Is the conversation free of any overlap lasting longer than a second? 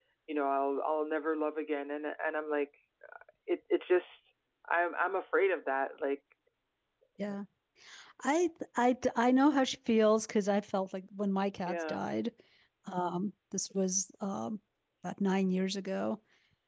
Yes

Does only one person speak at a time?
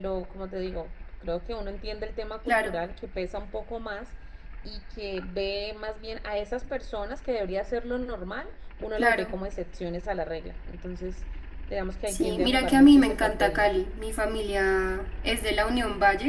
No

